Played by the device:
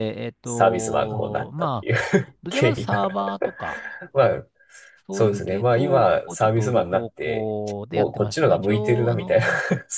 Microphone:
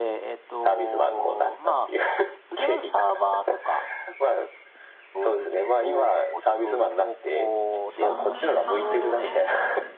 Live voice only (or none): 3年半ですね。